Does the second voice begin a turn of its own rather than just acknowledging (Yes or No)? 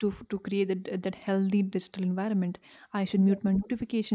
No